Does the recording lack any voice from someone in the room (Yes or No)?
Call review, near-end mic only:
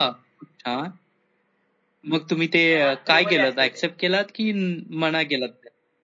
No